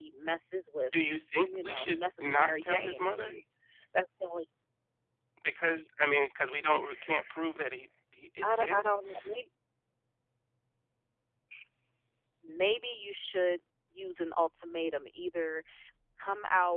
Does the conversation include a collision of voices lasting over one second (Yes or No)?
Yes